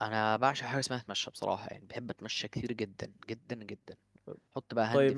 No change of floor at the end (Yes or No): Yes